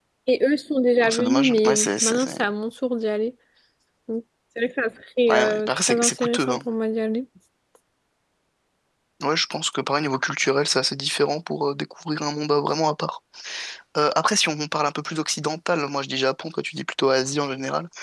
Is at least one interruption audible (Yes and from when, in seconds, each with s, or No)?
Yes, from 1.1 s